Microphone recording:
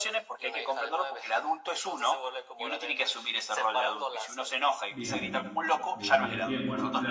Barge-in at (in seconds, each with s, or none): 4.9 s